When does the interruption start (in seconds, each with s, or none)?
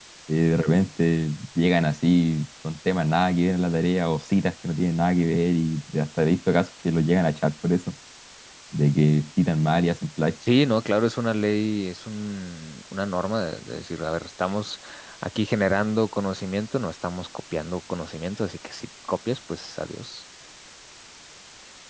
none